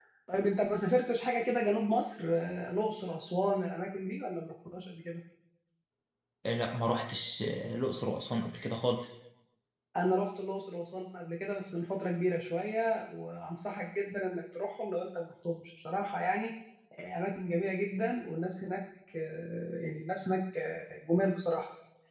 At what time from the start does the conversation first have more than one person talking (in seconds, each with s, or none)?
none